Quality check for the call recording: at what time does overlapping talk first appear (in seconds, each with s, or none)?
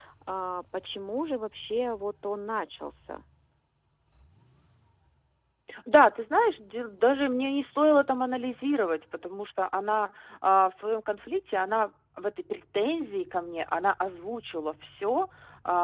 none